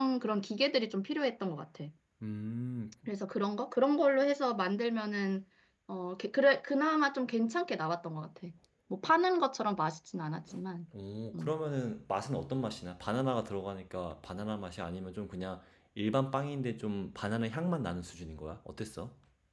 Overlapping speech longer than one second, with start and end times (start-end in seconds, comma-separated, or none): none